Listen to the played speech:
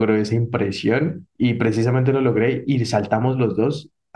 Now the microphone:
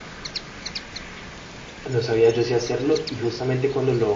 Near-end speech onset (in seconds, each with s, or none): 1.9 s